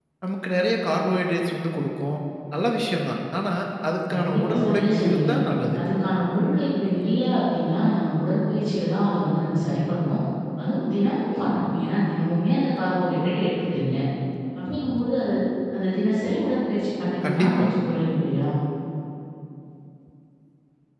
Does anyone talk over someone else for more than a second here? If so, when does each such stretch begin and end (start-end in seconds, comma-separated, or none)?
4.1-5.3